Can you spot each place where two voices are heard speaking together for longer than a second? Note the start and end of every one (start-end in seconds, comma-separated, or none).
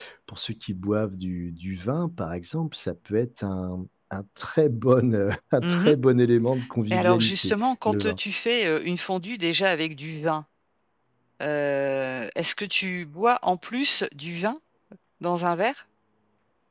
6.9-8.2